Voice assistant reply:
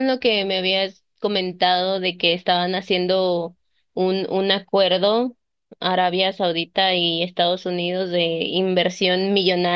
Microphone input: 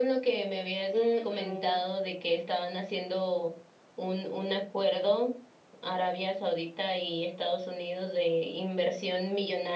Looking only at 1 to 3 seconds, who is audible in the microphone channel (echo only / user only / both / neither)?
both